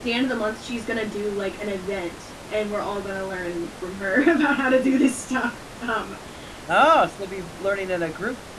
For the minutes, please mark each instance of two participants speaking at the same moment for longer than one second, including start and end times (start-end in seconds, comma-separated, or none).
none